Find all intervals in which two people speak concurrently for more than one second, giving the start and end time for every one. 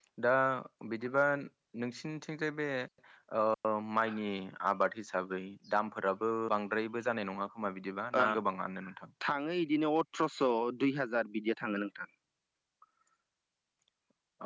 none

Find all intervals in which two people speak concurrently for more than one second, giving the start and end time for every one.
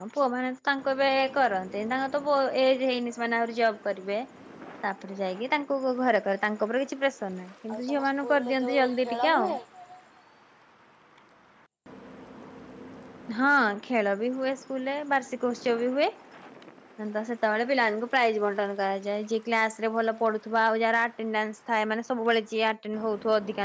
7.7-9.5

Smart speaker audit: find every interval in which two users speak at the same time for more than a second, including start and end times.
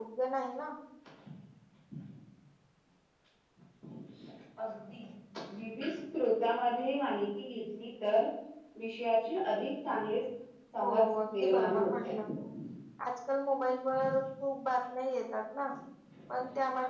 10.8-12.1

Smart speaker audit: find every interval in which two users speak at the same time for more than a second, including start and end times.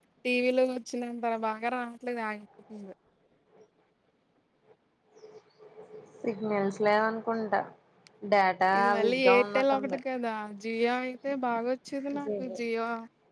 8.8-10.0

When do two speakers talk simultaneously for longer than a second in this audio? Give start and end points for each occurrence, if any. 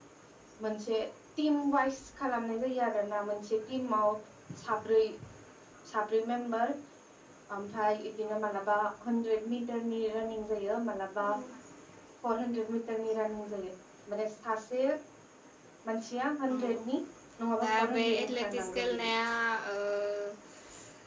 17.6-19.0

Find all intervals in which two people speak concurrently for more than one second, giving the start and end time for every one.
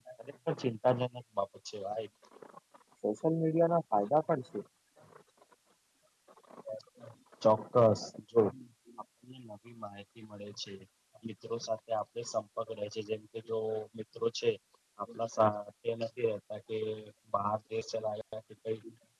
none

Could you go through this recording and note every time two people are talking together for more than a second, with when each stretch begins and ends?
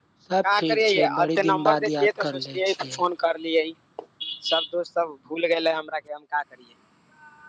0.6-3.0

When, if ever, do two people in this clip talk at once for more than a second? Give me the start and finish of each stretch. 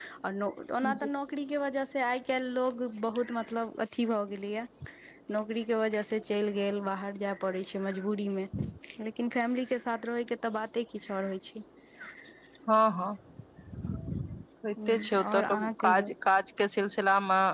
14.9-16.1

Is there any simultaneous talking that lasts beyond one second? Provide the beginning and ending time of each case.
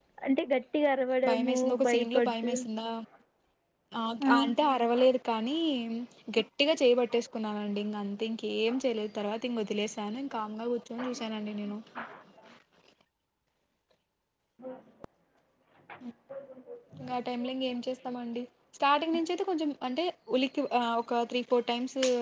1.3-2.5

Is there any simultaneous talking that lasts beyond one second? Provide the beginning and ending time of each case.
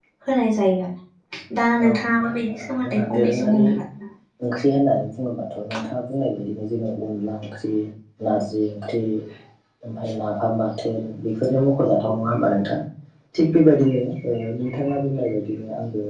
1.8-3.6

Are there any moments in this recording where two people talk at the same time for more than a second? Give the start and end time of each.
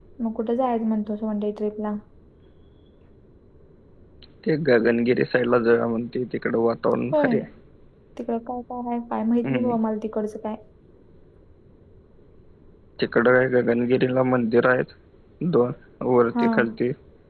none

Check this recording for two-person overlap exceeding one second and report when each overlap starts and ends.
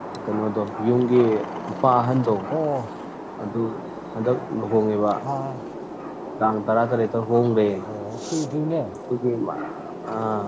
none

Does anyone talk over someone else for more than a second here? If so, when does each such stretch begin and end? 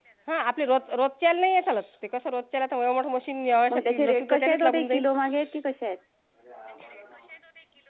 3.7-5.0

